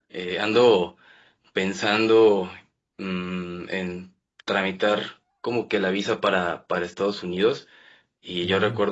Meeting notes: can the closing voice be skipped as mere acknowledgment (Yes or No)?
Yes